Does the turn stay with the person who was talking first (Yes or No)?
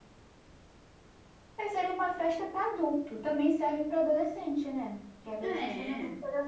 Yes